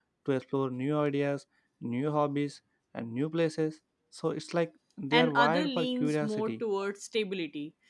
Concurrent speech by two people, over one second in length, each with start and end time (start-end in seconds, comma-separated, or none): 5.1-6.5